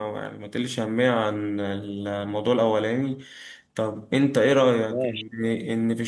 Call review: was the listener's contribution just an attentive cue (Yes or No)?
Yes